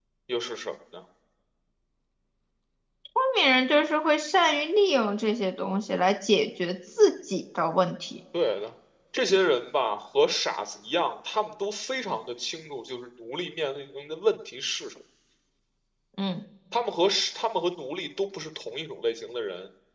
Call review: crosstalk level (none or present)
none